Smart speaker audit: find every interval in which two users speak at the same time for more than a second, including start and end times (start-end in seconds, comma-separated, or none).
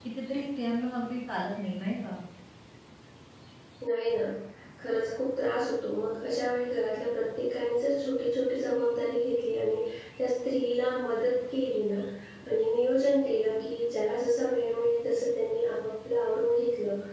none